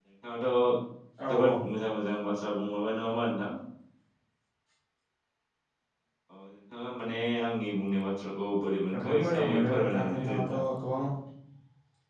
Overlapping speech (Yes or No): Yes